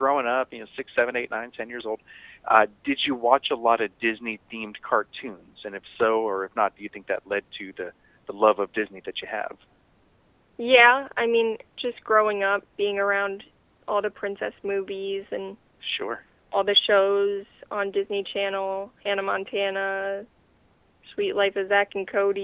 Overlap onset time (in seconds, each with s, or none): none